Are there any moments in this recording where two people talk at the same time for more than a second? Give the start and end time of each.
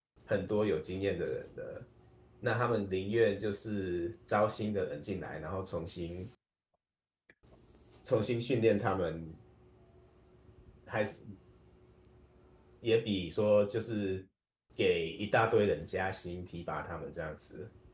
none

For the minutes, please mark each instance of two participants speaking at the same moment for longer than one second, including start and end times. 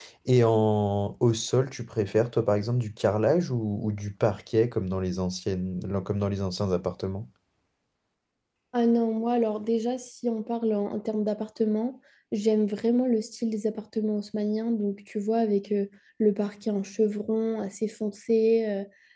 none

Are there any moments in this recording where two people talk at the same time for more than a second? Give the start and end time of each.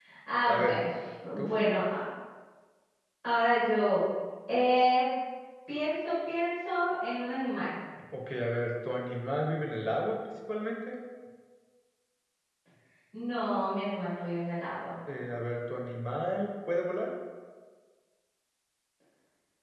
none

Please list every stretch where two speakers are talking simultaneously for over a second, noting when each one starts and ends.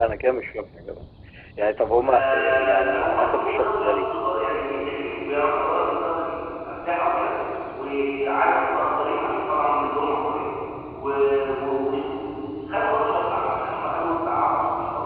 2.0-4.1

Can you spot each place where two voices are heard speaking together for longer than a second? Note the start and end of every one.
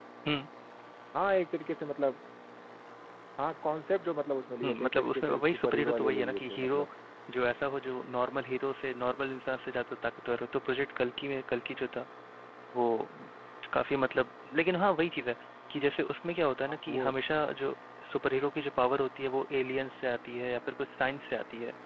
4.6-6.9

